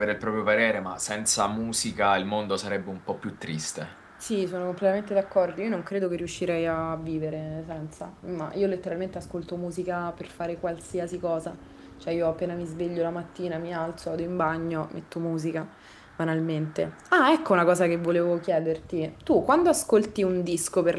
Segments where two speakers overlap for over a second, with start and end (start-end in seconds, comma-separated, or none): none